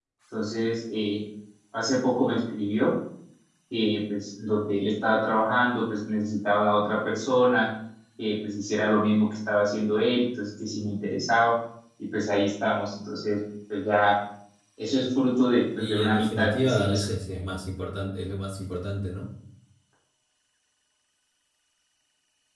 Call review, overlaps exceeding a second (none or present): present